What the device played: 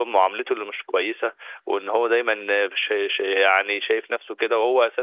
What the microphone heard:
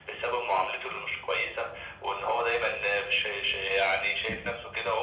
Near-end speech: none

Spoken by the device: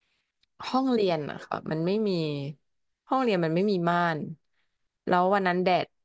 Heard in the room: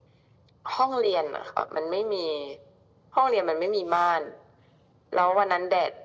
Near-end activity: none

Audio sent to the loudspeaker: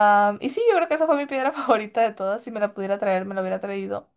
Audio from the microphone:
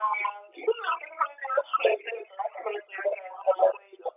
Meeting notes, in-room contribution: none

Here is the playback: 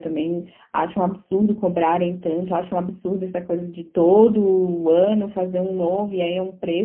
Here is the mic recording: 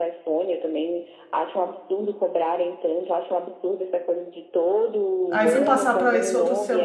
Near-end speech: present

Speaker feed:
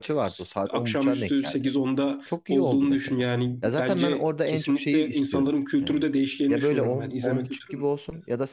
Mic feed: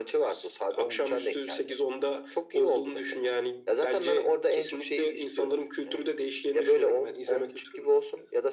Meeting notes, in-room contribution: none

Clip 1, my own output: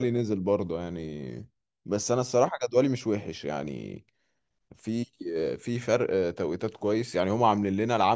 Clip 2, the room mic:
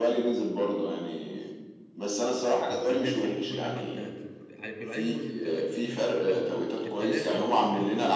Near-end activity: present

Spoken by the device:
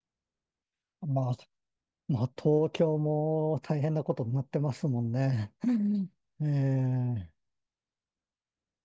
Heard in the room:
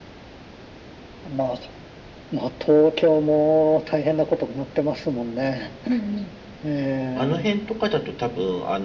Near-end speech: present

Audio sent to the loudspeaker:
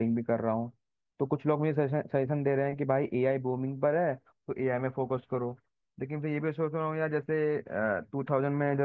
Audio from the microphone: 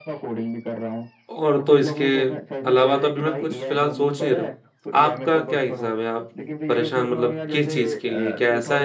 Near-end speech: present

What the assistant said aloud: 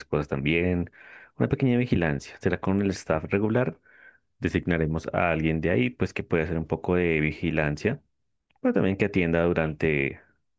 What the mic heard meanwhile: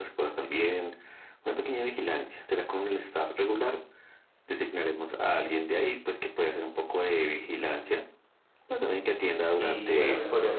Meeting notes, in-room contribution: present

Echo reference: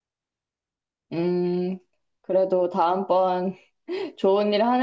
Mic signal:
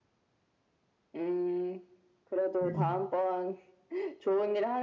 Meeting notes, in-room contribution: present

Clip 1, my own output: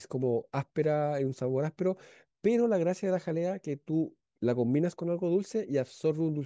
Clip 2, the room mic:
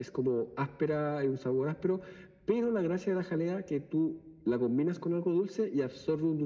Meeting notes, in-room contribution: none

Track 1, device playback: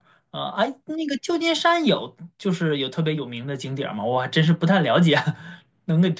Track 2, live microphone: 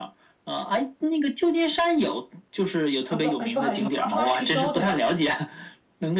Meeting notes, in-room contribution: present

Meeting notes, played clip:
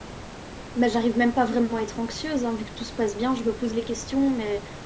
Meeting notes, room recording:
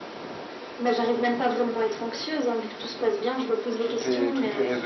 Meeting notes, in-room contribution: present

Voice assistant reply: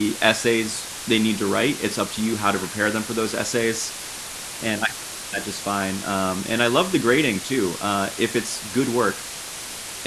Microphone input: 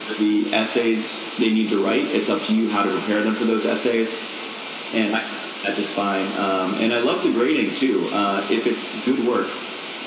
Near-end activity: none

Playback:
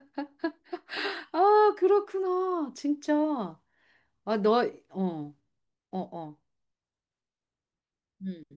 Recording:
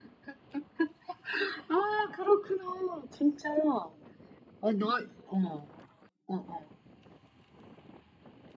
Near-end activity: none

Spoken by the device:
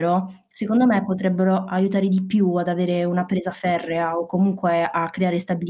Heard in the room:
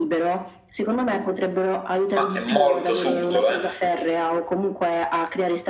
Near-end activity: present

